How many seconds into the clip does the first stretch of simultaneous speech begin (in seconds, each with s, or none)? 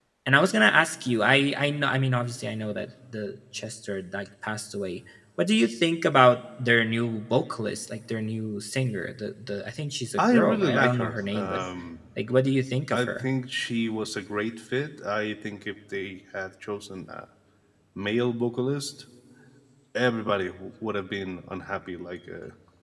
10.2 s